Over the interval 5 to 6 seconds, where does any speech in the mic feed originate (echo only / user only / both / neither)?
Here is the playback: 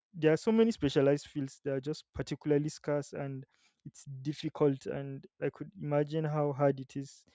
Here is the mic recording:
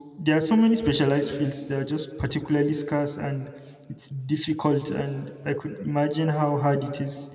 echo only